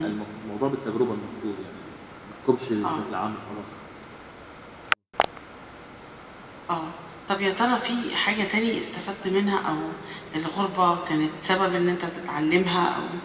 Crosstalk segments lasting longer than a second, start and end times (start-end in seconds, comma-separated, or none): none